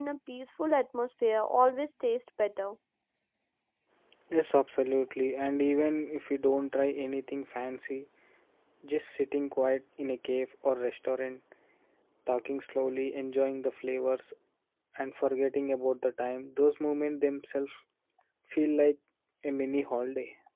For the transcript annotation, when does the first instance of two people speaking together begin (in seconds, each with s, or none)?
none